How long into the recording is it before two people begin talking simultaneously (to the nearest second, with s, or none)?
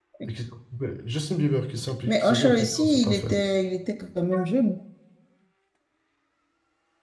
2 s